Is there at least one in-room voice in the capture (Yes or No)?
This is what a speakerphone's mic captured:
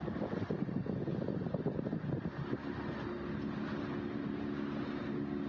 No